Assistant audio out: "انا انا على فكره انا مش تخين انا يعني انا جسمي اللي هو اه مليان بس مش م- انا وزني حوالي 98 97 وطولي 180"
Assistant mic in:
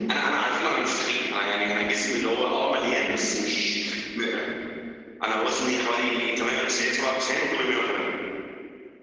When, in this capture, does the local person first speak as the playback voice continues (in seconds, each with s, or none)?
none